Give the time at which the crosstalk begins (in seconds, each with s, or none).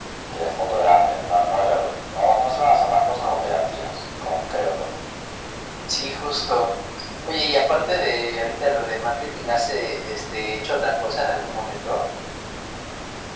none